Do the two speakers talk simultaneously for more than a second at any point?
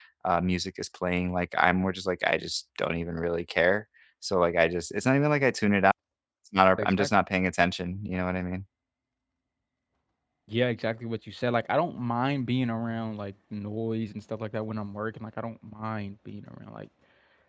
No

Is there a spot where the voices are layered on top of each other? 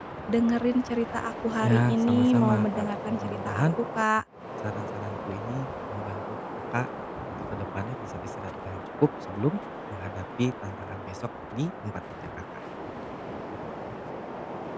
Yes, from 1.6 s

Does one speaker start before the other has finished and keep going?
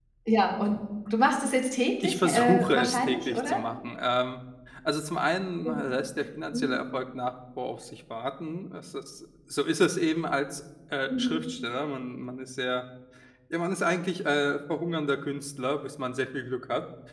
Yes, from 2.0 s

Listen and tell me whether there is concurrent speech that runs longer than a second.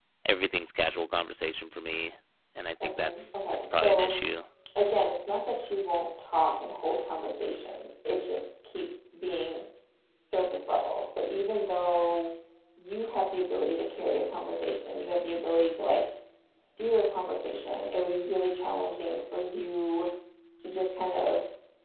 Yes, from 2.8 s

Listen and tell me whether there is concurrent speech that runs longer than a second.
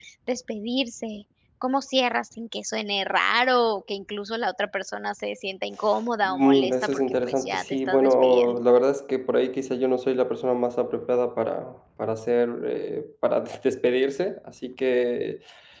Yes, from 6.2 s

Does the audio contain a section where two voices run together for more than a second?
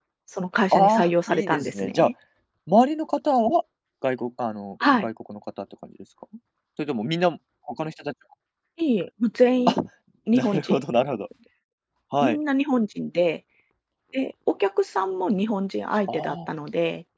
Yes, from 0.7 s

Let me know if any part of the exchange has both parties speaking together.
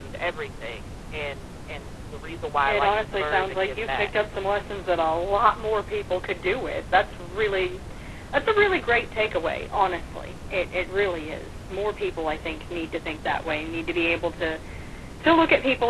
Yes, from 2.7 s

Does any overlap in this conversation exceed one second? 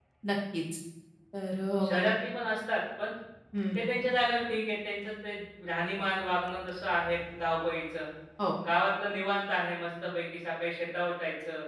No

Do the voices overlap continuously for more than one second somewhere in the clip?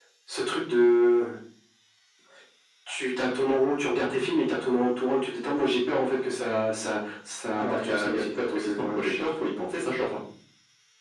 Yes, from 7.6 s

